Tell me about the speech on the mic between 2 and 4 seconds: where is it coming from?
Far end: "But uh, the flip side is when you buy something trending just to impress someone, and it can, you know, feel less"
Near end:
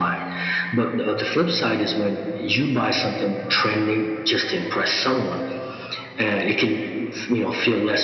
echo only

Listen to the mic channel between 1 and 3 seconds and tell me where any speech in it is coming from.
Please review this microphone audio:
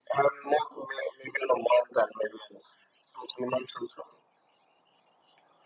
echo only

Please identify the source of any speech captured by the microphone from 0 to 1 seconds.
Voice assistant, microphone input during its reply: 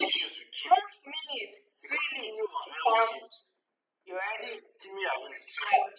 echo only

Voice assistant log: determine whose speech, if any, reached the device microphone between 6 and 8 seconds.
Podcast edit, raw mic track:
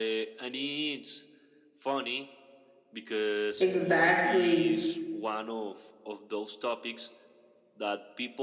echo only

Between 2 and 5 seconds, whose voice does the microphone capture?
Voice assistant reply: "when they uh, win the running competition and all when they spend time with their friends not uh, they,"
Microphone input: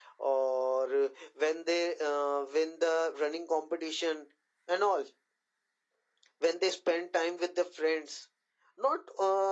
echo only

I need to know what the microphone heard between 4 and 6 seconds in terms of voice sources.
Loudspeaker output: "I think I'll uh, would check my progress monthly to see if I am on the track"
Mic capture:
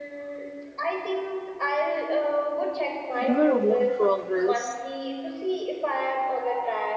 both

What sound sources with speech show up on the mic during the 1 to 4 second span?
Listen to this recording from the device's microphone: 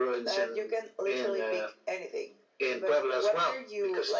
echo only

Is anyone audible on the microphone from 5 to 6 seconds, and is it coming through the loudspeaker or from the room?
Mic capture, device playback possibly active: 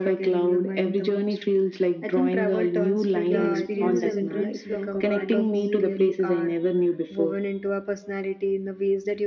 both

